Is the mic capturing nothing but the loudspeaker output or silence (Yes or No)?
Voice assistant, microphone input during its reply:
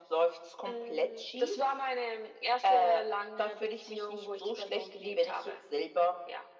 Yes